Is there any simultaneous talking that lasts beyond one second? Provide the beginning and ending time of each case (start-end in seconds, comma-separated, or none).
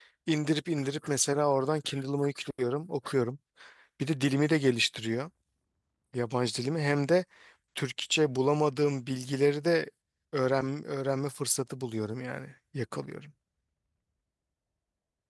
none